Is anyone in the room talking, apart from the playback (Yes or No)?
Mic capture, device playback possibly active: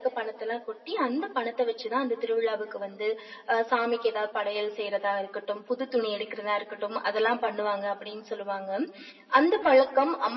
No